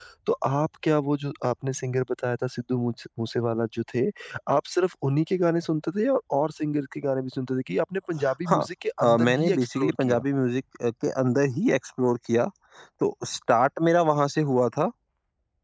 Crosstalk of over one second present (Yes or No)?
Yes